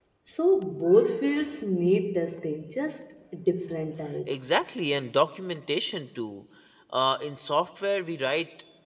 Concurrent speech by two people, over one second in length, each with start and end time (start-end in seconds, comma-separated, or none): none